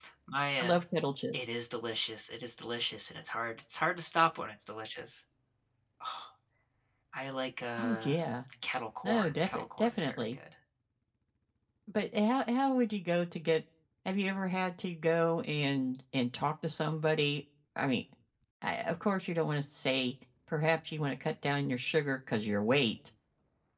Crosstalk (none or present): present